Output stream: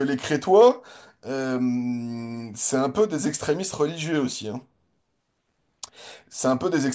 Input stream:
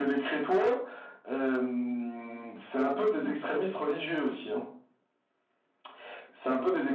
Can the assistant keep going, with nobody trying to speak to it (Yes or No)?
Yes